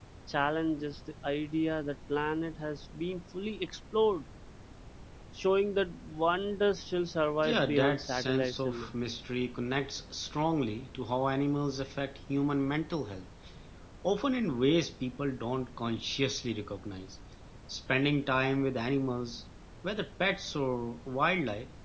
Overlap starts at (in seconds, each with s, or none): 7.4 s